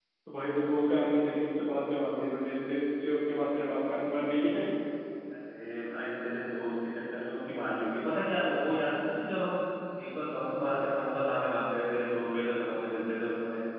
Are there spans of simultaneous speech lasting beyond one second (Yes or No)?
No